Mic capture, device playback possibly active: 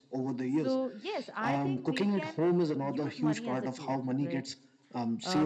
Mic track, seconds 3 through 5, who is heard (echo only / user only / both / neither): both